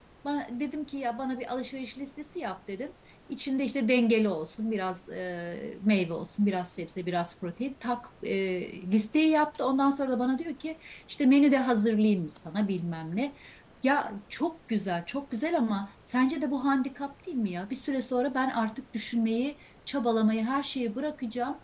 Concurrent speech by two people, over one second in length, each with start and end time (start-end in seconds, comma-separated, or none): none